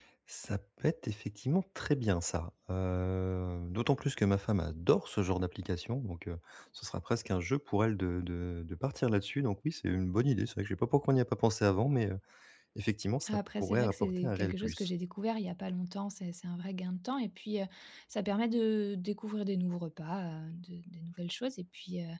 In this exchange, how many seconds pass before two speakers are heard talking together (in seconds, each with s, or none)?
13.2 s